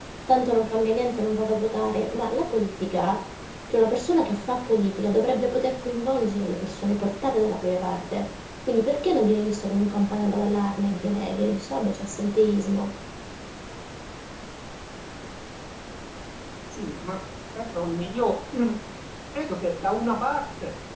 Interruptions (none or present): none